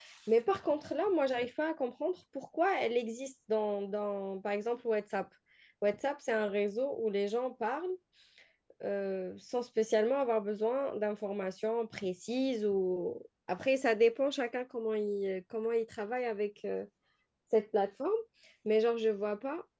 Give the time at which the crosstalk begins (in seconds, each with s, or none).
none